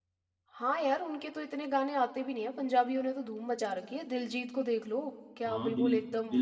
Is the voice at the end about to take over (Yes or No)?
Yes